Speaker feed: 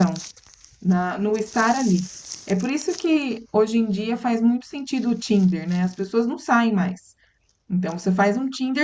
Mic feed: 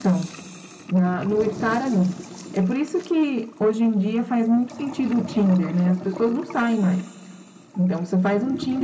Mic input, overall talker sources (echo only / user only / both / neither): echo only